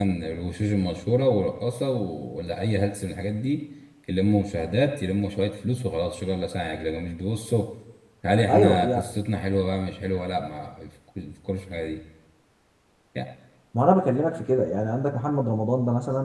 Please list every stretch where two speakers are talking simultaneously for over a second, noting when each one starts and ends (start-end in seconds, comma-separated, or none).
none